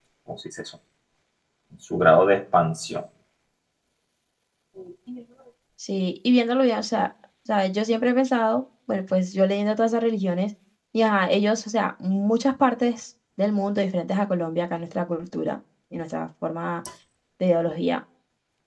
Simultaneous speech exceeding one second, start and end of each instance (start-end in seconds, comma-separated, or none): none